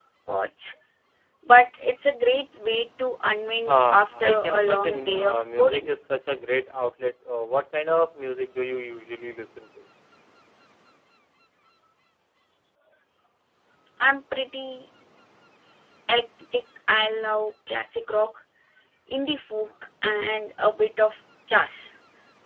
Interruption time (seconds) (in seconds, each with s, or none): 3.7 s